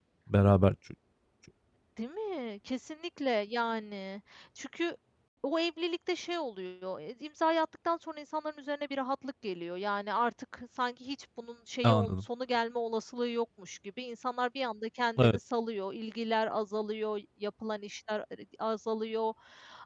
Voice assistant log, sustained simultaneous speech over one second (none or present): none